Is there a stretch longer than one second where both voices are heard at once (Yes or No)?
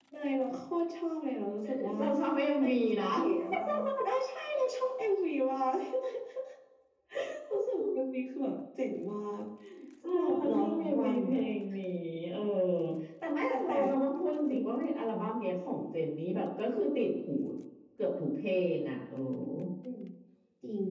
Yes